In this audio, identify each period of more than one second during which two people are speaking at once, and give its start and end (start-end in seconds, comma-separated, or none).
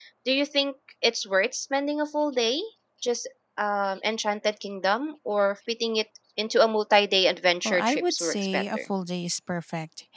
7.6-8.8